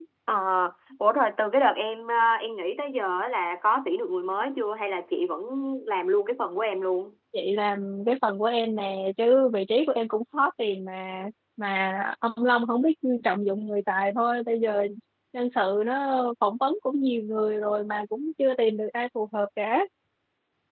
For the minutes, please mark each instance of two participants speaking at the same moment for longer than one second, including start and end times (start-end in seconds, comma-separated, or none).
none